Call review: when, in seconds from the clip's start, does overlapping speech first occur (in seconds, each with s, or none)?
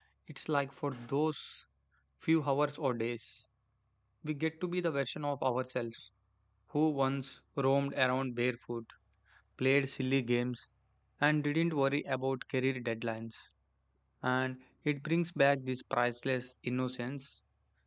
none